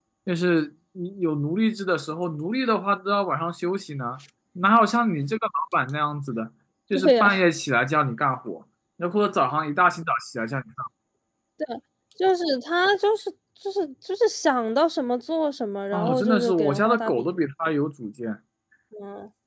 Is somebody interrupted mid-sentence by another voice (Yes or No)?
Yes